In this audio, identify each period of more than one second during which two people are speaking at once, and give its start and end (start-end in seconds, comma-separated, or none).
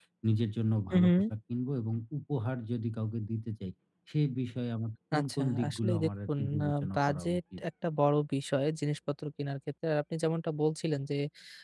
5.2-7.6